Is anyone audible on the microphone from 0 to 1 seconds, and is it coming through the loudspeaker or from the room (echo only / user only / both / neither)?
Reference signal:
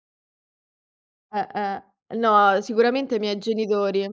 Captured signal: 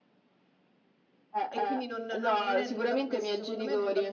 neither